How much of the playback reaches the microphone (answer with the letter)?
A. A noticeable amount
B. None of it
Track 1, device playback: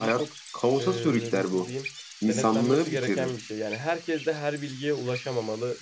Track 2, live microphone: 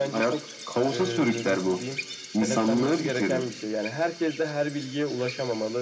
A